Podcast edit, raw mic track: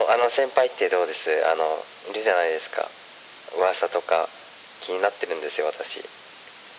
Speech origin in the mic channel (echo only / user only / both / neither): echo only